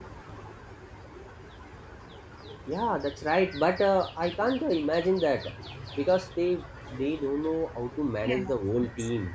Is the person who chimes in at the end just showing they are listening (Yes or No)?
No